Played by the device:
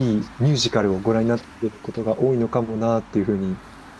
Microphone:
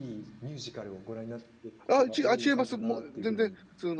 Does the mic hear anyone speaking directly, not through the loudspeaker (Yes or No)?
Yes